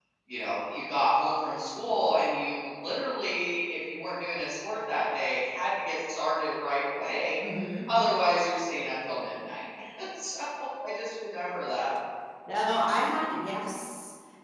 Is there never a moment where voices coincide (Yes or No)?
Yes